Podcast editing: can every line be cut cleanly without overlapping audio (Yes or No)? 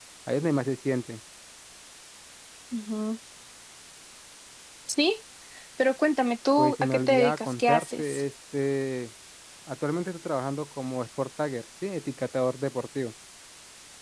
No